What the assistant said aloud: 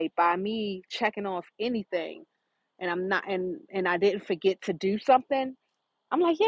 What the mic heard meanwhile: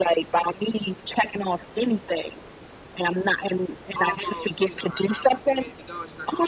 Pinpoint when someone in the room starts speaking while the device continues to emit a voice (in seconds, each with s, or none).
4.0 s